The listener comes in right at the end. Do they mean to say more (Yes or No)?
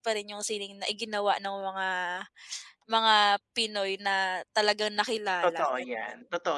Yes